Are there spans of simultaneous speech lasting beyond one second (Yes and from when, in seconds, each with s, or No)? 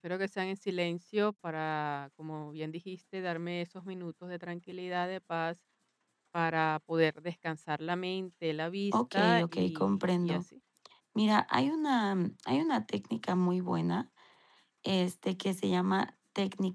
Yes, from 8.9 s